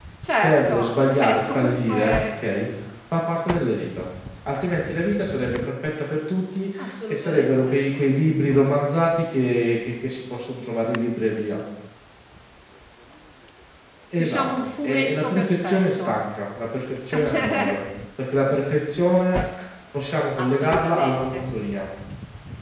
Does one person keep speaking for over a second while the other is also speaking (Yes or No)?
Yes